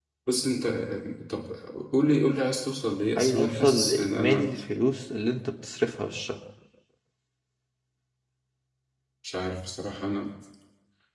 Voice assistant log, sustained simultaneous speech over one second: present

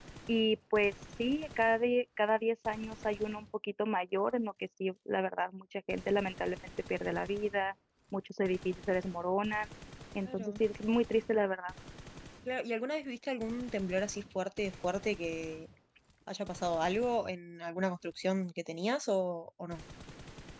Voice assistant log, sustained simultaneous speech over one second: none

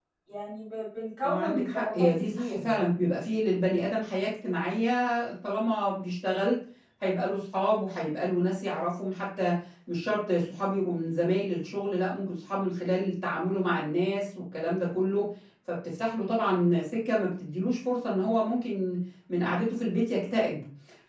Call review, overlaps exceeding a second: present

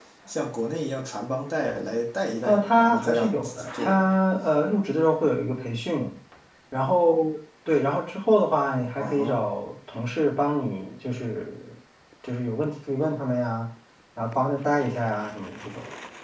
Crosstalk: present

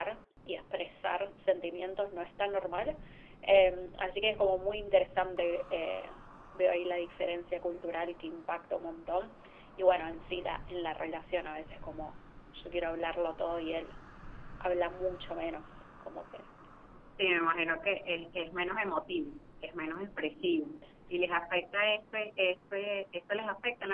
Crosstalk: none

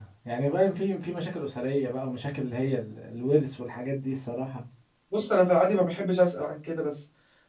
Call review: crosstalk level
none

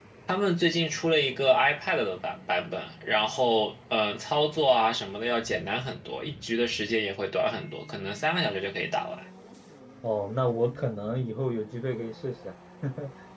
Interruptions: none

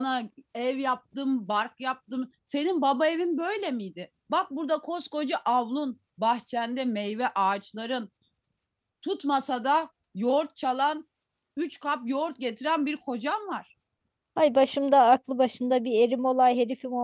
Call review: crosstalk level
none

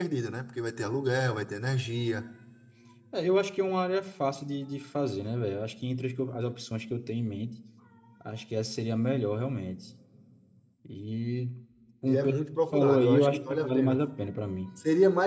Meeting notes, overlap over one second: present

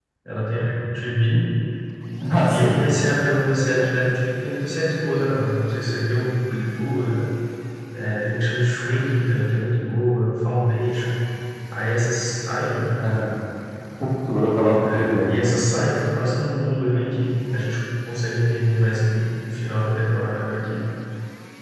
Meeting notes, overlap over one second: none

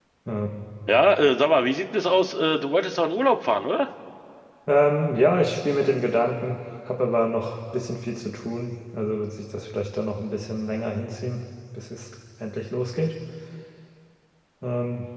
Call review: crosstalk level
none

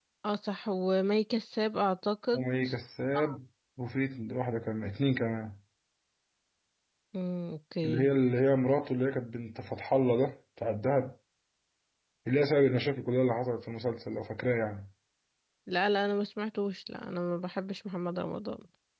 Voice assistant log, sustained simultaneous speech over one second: none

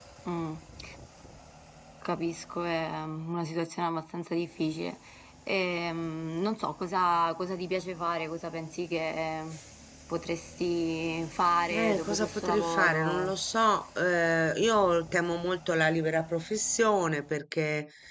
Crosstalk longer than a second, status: present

